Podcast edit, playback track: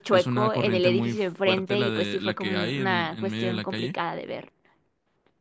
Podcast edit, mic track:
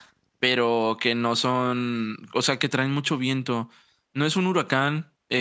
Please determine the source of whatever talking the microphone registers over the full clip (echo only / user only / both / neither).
user only